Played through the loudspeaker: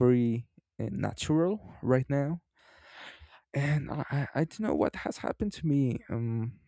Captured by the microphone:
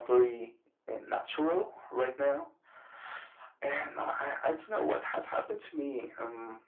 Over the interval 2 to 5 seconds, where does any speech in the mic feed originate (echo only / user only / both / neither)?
echo only